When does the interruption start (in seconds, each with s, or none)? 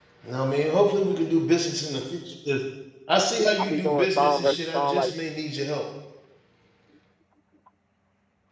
3.6 s